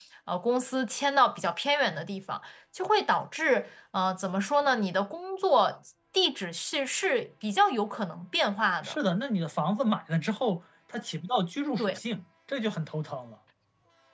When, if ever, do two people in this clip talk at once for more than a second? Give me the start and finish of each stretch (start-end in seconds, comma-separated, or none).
none